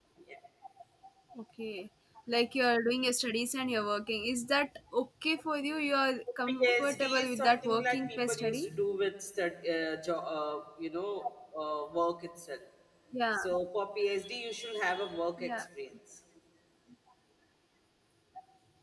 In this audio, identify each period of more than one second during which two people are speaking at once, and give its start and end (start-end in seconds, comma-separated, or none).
6.5-8.6